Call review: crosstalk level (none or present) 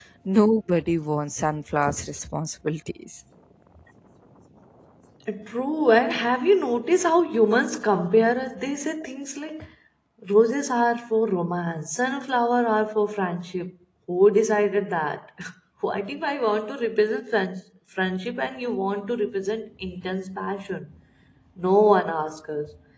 none